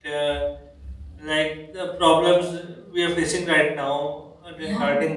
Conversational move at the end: listening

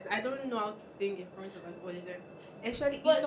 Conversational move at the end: listening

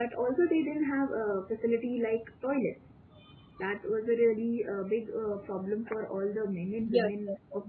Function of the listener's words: taking over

